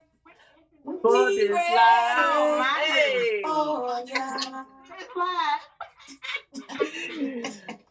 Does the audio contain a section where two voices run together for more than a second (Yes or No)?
Yes